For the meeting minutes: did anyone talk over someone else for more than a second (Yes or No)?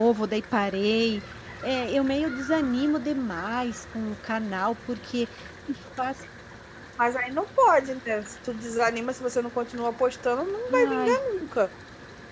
No